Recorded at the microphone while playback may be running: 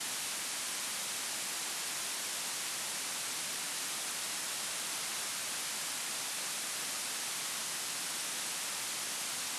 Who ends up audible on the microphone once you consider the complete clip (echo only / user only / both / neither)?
neither